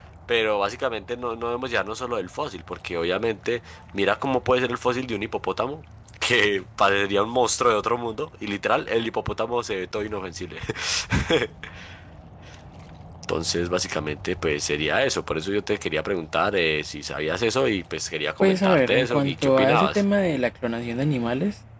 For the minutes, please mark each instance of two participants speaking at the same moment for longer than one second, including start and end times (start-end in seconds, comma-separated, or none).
18.4-20.0